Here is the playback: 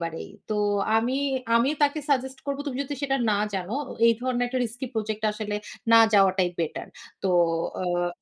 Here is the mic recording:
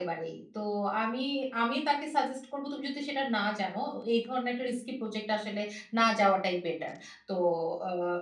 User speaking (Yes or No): No